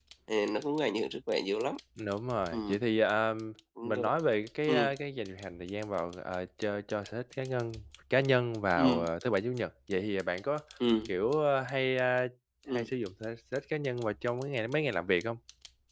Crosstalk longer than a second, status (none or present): none